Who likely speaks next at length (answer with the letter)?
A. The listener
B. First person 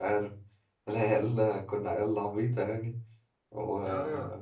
B